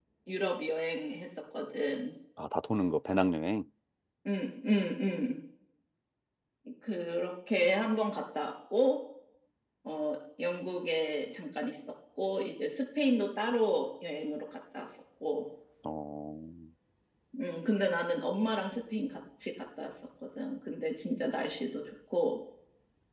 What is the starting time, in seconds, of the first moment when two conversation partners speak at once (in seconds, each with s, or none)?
none